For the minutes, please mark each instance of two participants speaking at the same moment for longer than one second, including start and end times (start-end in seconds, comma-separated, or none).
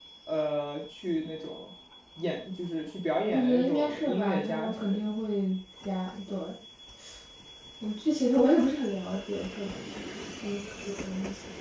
3.3-5.1